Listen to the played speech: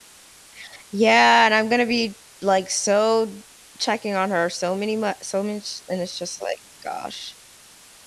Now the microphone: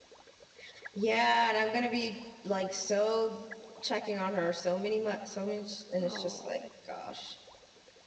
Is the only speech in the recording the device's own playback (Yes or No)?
No